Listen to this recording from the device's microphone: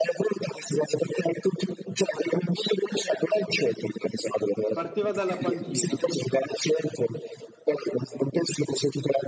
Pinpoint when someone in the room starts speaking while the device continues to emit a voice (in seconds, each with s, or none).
4.7 s